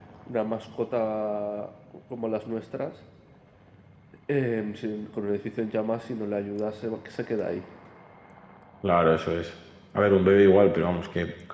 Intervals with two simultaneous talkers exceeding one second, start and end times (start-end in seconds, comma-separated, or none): none